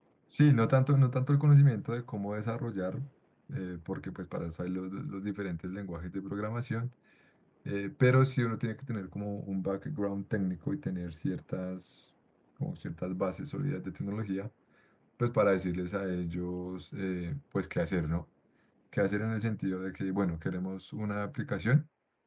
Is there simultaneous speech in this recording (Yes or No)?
No